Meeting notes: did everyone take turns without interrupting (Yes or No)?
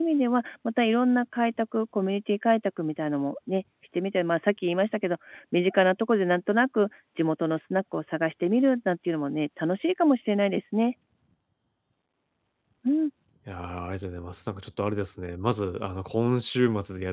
Yes